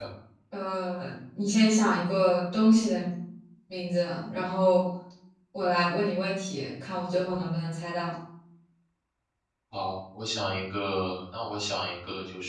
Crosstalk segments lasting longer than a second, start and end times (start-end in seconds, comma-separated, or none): none